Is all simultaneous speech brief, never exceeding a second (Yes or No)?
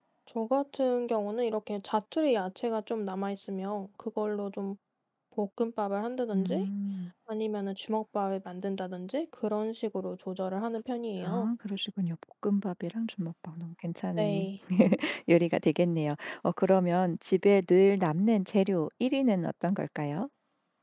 Yes